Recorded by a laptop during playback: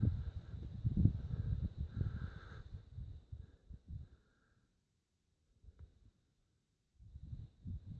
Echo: none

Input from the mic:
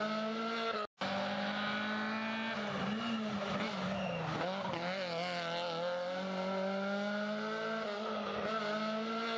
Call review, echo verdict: none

